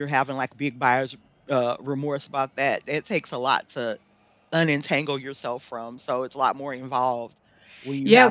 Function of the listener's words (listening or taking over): taking over